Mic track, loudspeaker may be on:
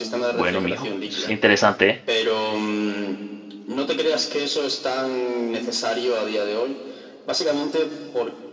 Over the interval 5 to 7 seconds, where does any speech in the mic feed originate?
echo only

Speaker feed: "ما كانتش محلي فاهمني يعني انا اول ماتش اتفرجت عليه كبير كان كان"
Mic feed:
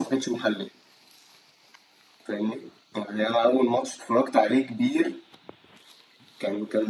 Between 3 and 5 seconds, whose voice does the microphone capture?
echo only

